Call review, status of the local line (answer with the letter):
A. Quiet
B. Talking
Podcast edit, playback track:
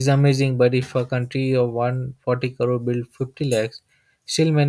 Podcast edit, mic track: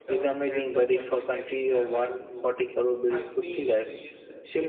B